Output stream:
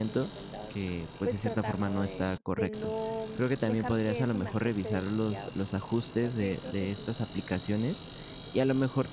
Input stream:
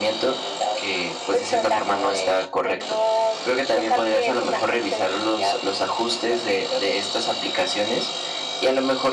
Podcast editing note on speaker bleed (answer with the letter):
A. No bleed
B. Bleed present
B